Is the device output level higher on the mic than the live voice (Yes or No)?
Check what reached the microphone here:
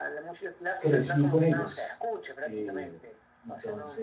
No